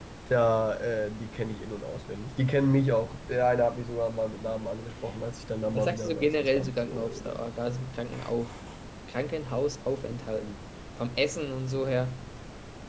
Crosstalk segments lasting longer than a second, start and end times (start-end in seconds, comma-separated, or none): 5.7-7.4